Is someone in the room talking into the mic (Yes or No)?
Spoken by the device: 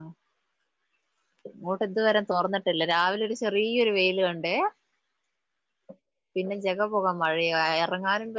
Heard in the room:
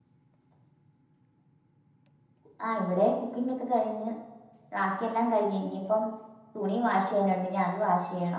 Yes